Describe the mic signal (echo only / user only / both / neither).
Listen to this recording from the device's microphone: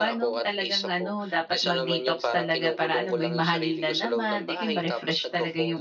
both